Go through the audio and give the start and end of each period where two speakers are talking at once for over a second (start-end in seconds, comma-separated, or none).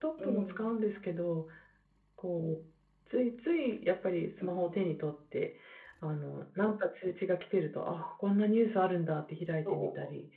none